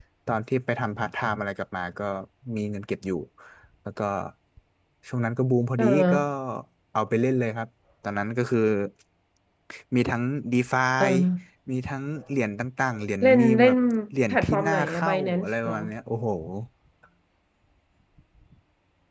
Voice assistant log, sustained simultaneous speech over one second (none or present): present